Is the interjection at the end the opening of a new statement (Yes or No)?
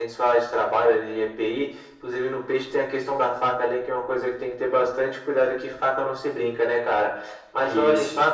No